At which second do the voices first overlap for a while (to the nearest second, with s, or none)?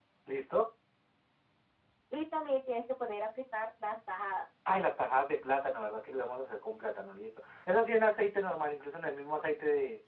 none